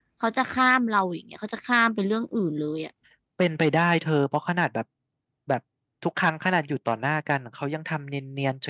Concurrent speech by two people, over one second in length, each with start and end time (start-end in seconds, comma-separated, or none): none